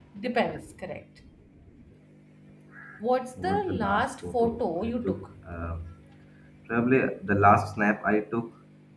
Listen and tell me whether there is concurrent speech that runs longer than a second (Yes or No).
Yes